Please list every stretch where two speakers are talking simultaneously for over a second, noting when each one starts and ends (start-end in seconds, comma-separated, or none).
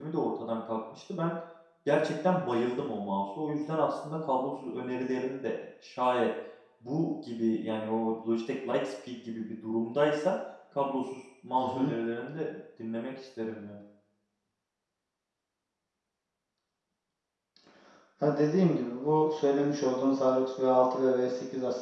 none